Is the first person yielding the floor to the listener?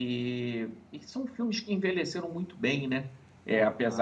No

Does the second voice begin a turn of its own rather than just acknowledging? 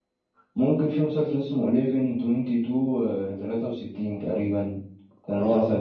Yes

